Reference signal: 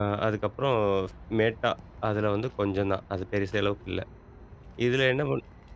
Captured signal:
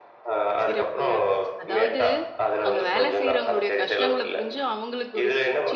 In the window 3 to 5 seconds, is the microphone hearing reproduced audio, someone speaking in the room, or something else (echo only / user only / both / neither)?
both